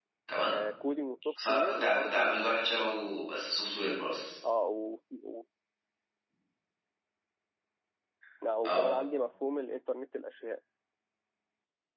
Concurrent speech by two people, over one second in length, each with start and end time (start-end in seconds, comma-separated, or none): 1.5-2.7